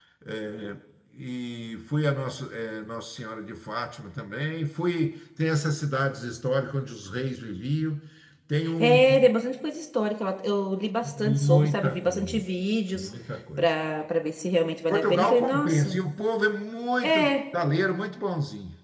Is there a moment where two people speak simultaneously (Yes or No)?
Yes